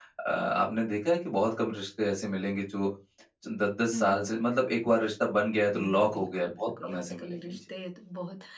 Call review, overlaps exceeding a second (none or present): present